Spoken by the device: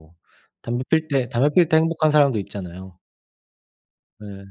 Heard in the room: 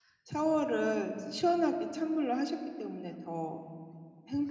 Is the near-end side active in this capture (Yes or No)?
Yes